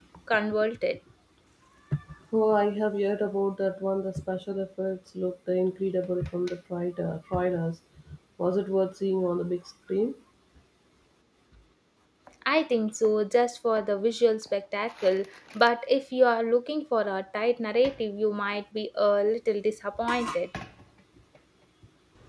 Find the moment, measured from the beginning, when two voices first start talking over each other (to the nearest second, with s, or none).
none